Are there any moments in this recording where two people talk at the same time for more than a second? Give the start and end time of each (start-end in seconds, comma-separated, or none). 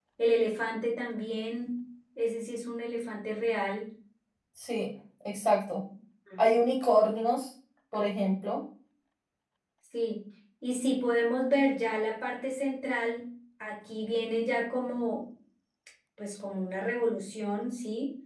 none